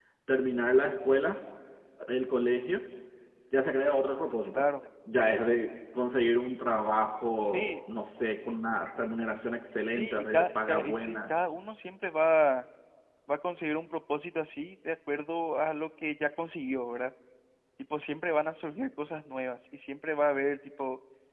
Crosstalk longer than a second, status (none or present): present